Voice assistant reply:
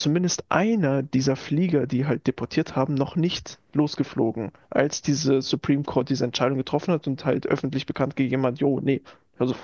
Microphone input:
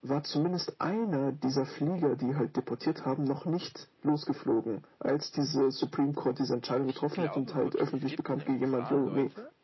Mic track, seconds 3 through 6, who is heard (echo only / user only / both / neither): echo only